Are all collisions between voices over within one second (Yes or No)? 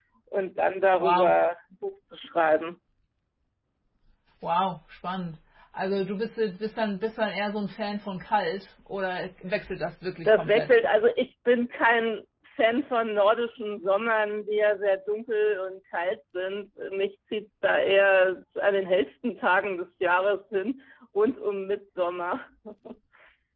Yes